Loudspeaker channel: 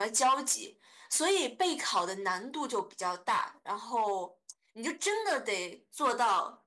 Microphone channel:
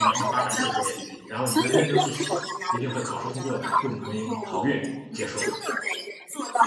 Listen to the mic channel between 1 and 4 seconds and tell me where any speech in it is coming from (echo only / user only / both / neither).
both